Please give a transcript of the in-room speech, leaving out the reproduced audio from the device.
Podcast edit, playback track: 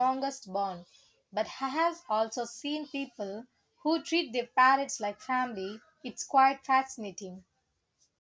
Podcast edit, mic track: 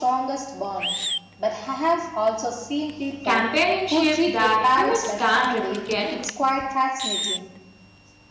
companionship that humans can't replicate

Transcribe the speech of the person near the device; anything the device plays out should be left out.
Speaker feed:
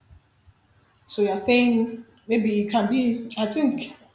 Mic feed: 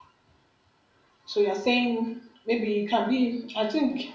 none

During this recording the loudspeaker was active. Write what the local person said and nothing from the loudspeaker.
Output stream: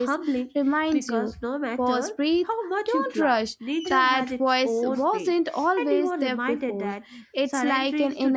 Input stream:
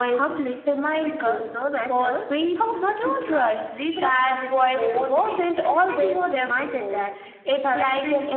none

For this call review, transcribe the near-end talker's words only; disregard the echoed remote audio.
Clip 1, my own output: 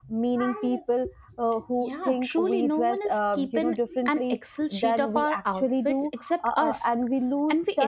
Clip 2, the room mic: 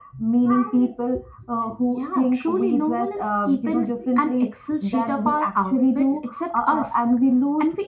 none

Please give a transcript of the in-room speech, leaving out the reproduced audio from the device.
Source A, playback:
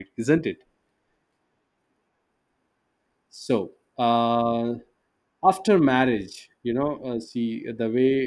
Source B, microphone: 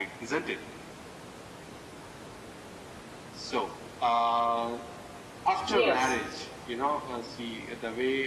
Yes.

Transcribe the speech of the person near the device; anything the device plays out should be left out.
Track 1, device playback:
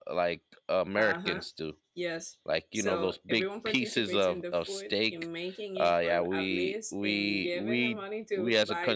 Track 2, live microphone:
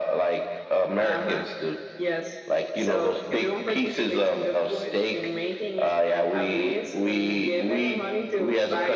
none

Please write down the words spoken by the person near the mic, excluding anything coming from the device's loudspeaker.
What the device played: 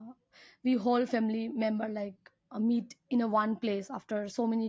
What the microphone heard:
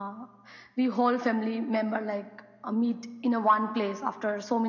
none

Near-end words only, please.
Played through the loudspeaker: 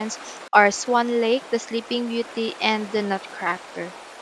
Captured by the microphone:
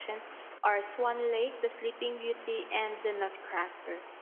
none

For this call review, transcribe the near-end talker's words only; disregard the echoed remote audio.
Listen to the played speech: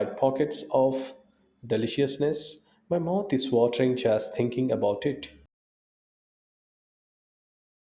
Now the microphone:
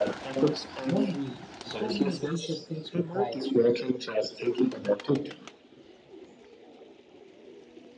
won't we? So many delicious things to try.

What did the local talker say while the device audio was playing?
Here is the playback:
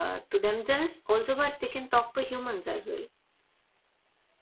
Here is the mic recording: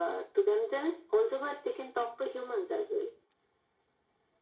none

